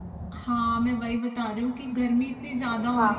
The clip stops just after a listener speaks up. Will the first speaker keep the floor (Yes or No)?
Yes